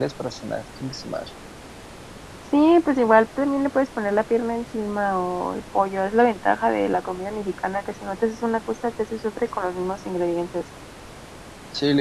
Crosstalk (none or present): none